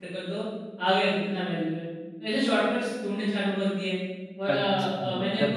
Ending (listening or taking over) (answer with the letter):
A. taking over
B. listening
A